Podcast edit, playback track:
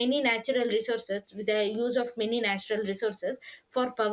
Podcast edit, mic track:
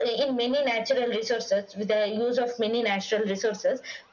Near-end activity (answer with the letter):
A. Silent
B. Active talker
A